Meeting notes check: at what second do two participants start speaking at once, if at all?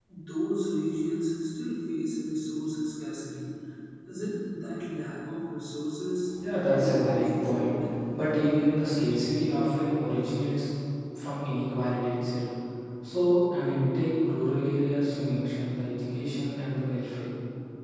6 s

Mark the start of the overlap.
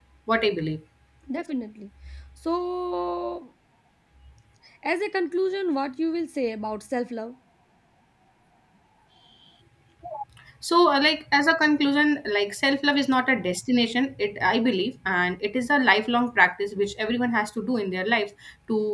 none

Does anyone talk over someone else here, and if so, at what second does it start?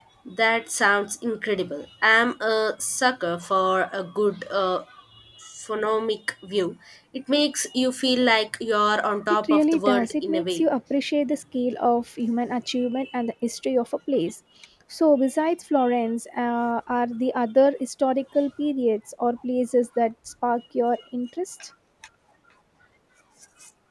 9 s

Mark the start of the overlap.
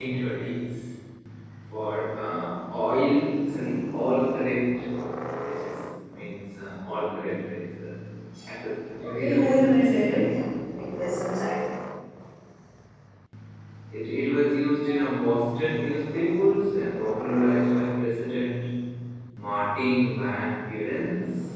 9 s

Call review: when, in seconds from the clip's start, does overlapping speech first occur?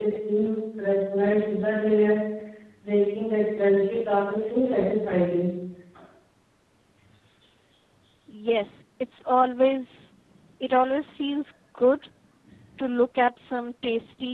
none

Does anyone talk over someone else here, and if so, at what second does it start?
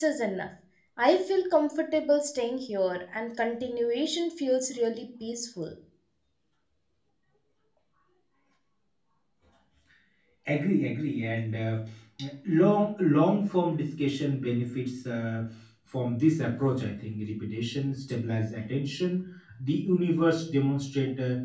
none

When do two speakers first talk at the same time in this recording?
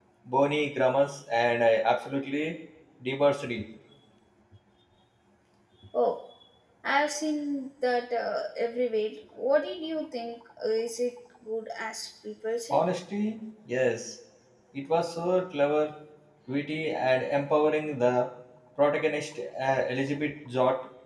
none

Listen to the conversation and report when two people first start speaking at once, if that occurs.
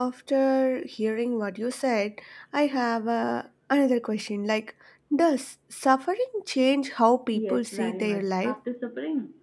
7 s

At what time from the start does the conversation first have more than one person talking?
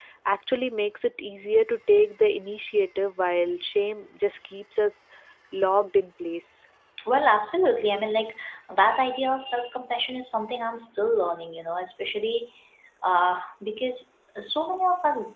none

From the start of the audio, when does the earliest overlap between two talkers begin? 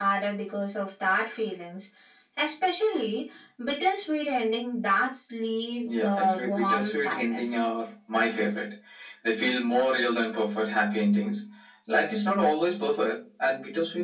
6 s

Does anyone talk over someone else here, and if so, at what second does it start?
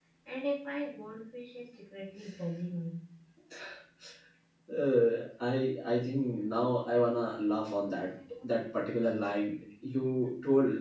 none

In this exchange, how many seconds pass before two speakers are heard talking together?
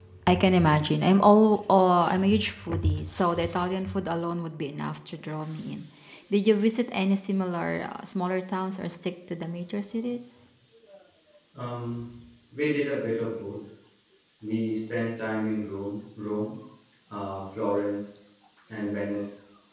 none

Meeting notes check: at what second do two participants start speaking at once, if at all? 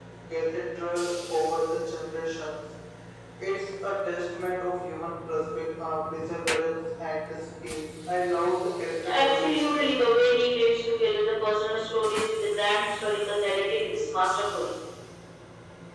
9 s

